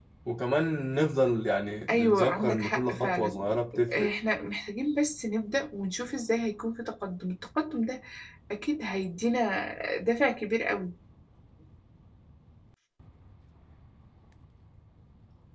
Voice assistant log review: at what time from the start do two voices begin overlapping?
1.9 s

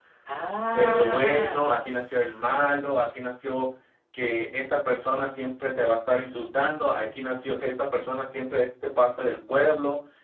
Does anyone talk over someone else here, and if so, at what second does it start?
0.7 s

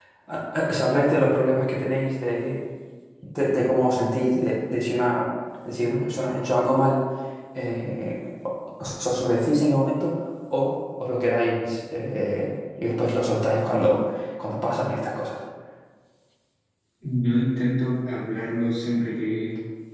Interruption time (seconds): none

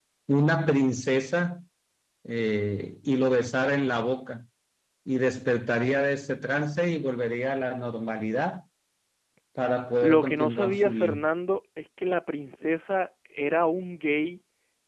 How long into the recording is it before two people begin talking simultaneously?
10.0 s

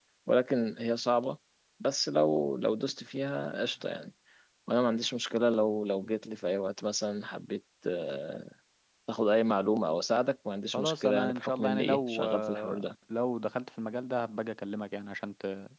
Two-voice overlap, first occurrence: 10.7 s

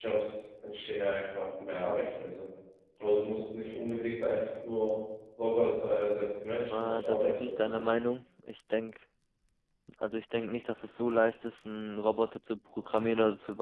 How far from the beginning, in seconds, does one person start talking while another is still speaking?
6.6 s

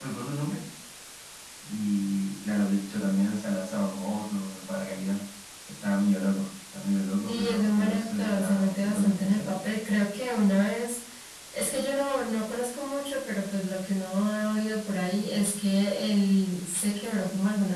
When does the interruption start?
7.3 s

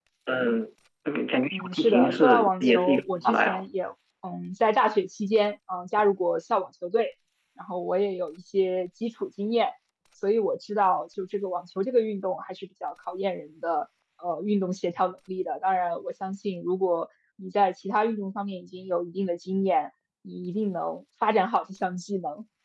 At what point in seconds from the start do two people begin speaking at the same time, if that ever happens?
1.5 s

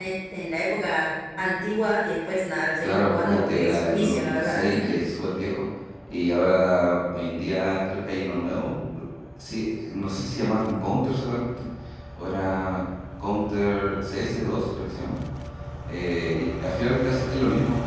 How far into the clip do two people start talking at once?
2.8 s

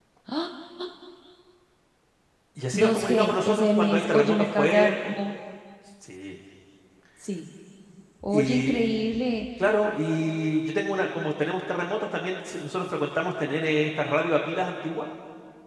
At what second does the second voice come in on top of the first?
2.7 s

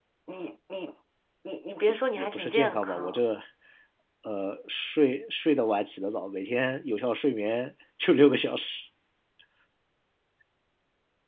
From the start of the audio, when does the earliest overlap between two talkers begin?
1.9 s

